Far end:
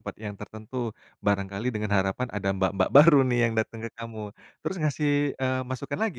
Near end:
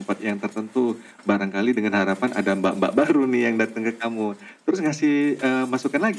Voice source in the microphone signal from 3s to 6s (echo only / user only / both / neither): echo only